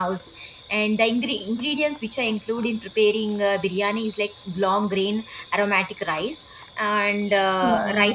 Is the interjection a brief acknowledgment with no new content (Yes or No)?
Yes